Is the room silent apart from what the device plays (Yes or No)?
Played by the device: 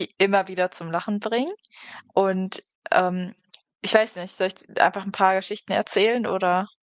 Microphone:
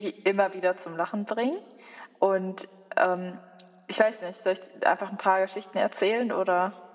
Yes